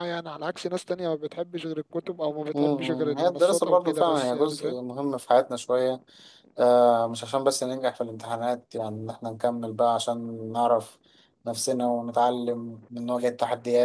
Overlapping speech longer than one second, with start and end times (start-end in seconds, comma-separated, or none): 2.5-4.8